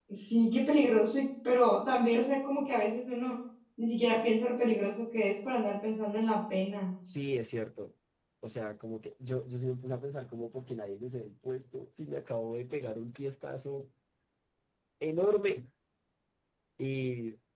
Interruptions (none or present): none